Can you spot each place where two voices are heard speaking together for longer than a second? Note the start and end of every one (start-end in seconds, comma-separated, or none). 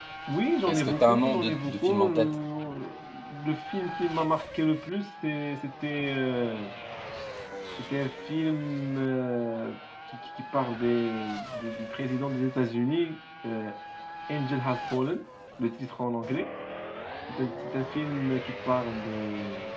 0.7-2.3